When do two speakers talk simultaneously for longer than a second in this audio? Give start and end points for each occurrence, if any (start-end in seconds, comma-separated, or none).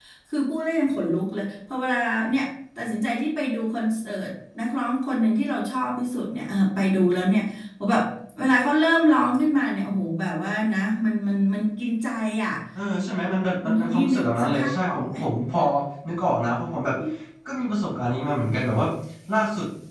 13.6-15.1